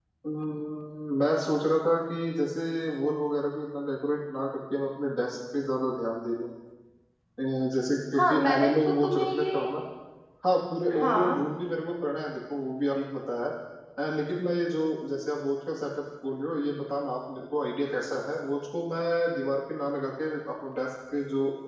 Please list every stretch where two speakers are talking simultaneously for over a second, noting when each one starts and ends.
8.2-9.4

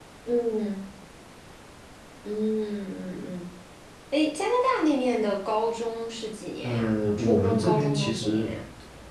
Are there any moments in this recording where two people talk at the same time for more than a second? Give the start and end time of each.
6.6-8.5

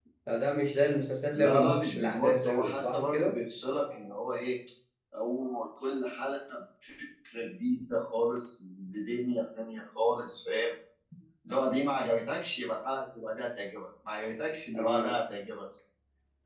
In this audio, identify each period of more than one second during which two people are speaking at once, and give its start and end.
1.3-3.4

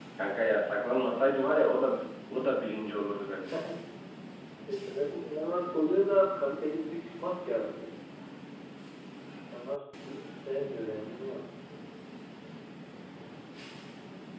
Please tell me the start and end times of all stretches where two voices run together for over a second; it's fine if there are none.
none

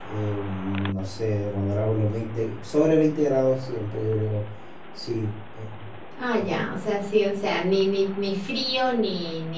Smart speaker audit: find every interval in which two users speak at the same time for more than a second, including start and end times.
none

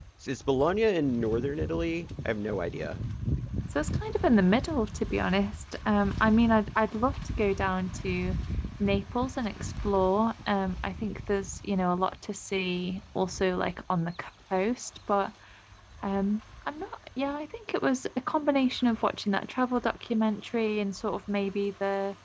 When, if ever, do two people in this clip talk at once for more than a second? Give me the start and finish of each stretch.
none

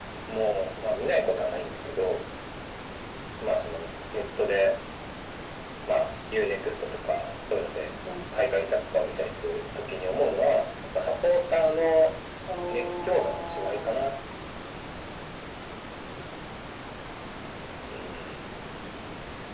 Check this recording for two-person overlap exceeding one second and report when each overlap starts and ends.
12.7-14.2

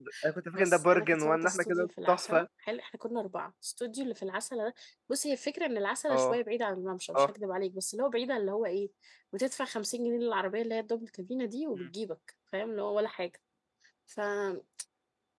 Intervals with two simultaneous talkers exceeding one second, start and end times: 0.5-2.5

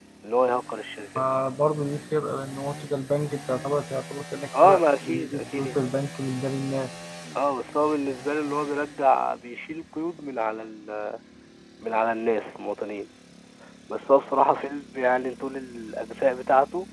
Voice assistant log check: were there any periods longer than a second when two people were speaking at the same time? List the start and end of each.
4.5-5.8

